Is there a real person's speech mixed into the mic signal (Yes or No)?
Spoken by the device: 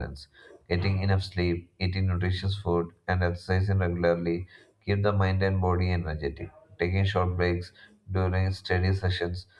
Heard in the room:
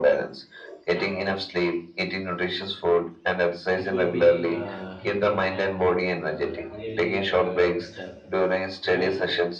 Yes